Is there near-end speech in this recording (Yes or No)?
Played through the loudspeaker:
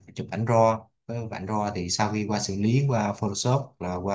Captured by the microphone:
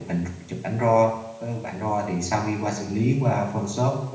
No